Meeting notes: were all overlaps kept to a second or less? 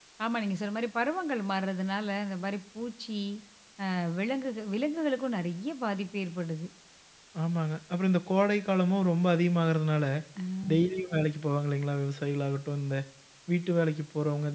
Yes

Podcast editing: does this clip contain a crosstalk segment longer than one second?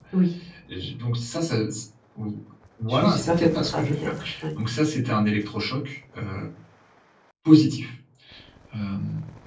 Yes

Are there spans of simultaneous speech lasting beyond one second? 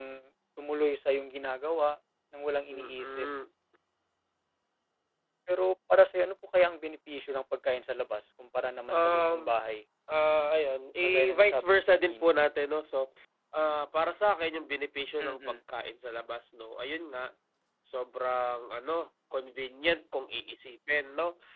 Yes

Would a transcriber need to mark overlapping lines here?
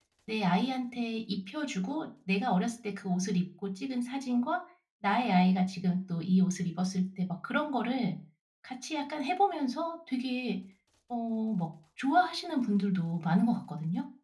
No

